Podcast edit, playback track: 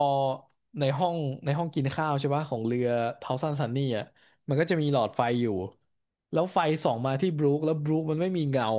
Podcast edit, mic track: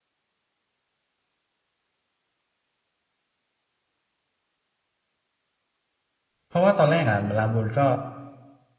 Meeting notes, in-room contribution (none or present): present